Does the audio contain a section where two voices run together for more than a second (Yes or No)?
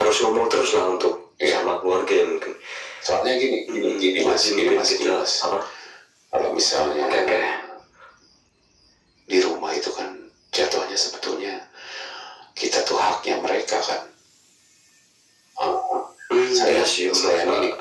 Yes